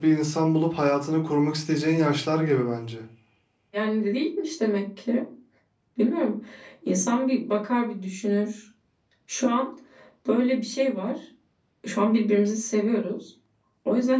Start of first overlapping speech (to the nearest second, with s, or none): none